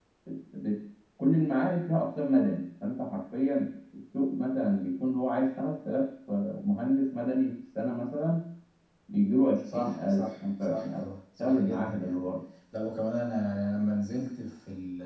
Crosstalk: present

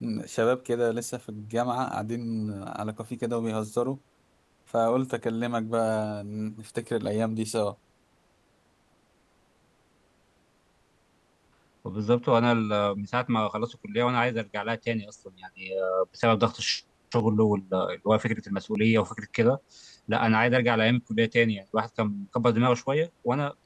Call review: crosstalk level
none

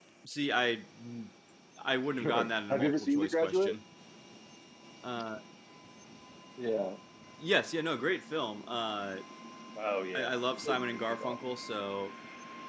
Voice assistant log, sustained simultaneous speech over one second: present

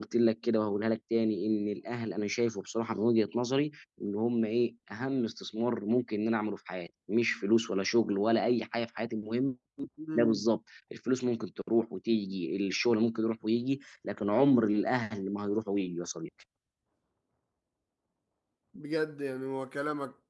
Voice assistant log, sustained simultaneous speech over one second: none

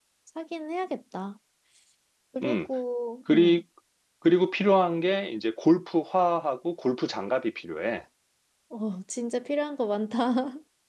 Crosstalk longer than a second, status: none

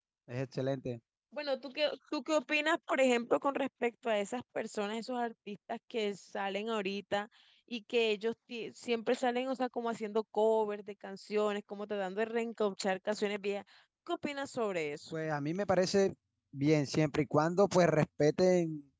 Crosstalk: none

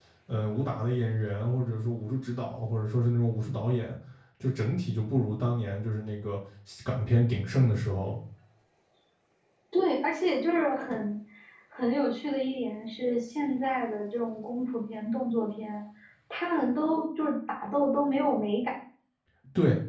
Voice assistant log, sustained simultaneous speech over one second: none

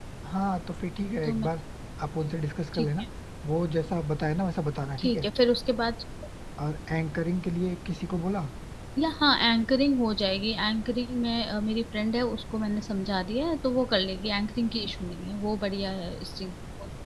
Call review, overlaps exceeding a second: none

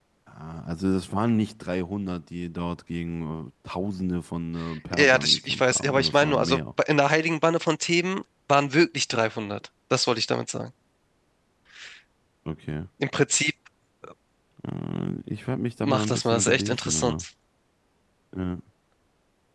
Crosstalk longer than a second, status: present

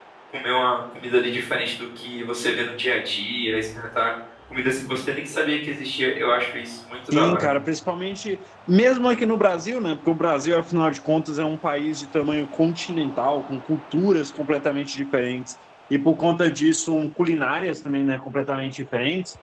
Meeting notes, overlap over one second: none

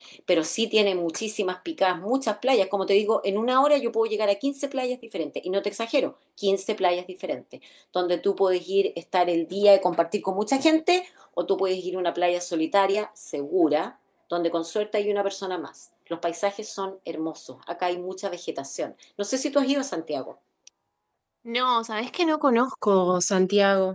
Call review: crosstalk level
none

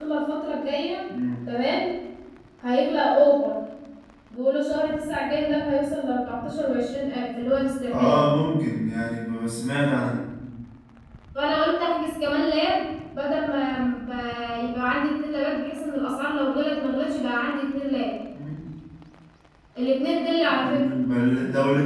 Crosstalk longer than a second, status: none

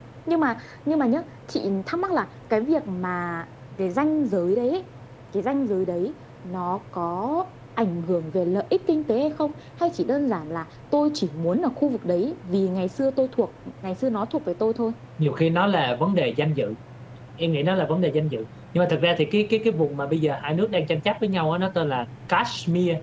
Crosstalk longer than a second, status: none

